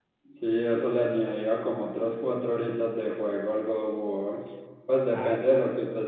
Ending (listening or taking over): listening